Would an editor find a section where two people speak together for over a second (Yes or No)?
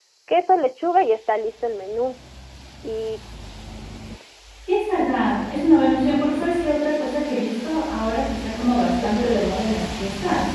No